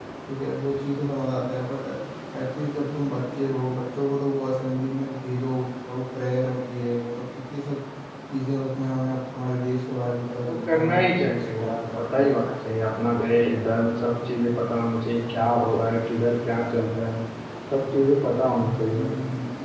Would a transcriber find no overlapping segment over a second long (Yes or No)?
No